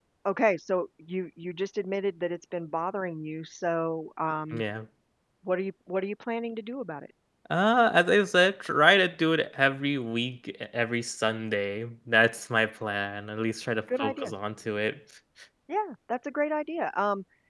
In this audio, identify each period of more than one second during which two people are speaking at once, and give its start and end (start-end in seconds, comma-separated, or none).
none